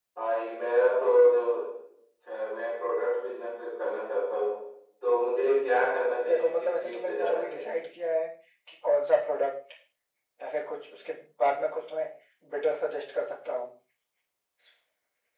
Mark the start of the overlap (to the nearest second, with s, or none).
6 s